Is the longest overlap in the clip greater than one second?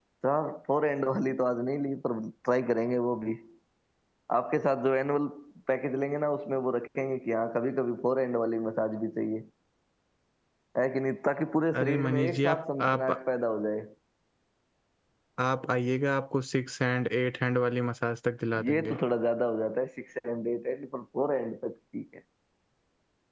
Yes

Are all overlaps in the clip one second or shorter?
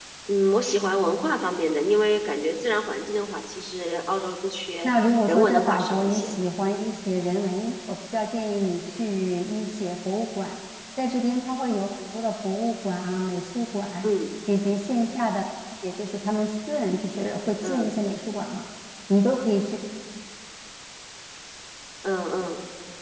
No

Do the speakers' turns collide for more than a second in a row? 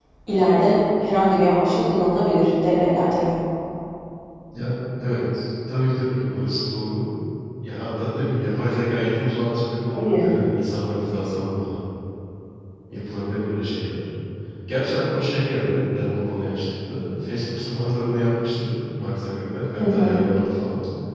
No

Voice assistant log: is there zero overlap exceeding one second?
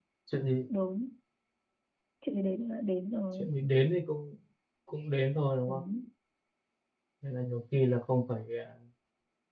Yes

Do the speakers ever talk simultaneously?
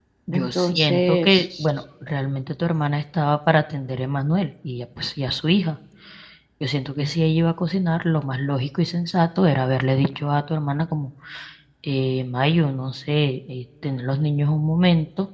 Yes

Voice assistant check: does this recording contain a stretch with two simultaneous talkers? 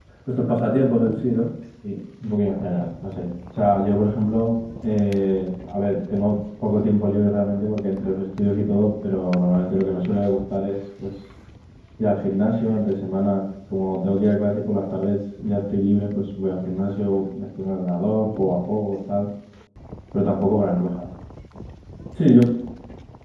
No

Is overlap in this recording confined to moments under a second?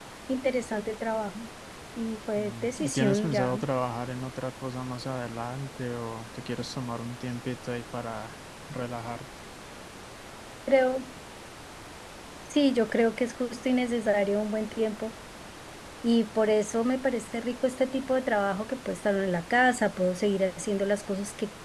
No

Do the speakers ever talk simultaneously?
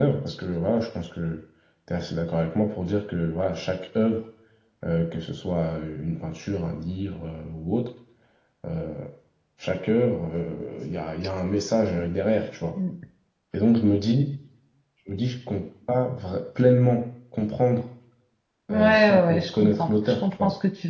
Yes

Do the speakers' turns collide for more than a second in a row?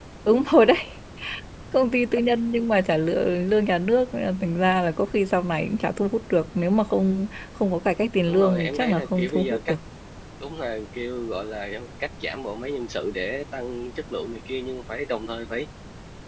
Yes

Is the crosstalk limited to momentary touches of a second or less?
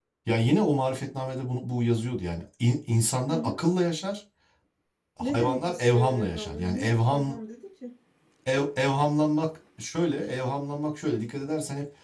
No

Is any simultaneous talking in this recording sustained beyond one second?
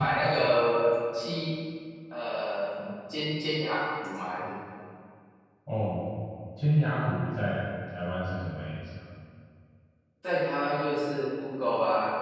No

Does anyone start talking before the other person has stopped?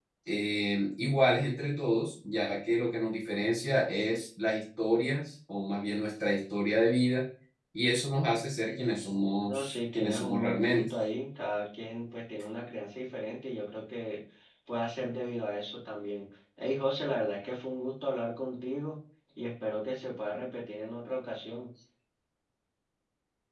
Yes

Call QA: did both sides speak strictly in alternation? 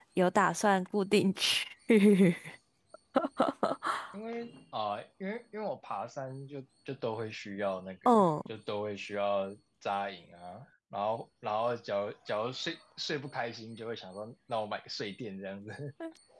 Yes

